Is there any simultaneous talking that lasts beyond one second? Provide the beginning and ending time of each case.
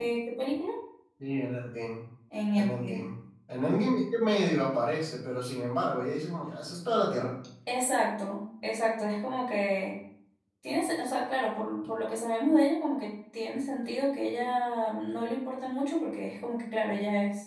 none

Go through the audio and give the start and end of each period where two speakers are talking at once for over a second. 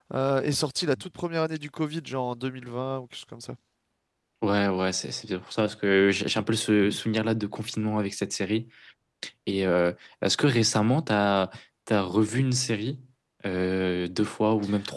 none

